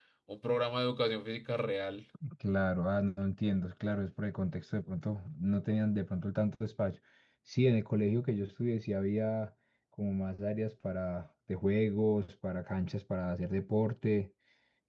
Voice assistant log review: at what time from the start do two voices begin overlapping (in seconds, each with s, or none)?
none